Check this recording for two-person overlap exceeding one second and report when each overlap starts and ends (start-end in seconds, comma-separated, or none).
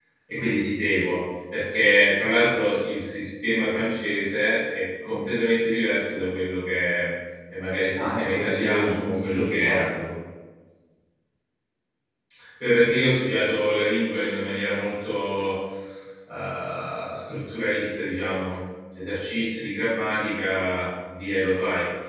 8.0-9.8